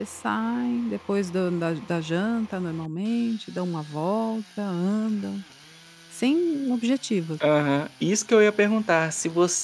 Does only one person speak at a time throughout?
Yes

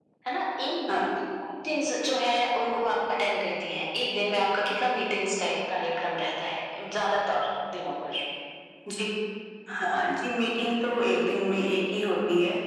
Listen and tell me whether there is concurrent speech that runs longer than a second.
No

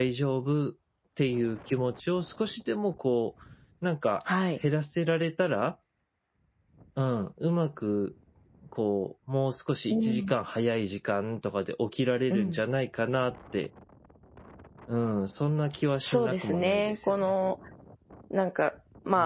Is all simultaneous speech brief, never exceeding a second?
No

